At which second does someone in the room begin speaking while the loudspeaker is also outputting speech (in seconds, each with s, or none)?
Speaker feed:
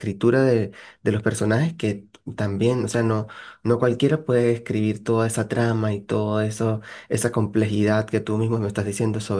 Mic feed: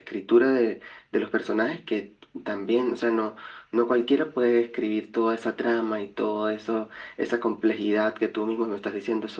none